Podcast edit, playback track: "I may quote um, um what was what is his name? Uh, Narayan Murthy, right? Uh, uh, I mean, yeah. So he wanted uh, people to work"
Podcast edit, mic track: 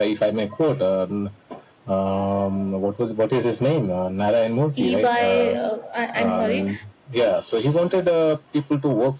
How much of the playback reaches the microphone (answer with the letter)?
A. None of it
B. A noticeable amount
B